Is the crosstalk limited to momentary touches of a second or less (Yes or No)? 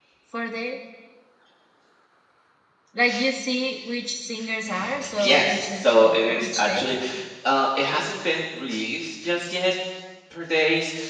No